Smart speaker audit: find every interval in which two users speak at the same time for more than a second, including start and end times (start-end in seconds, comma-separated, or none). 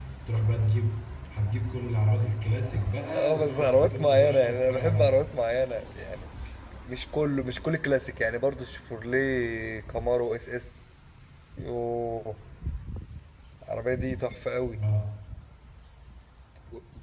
3.1-5.3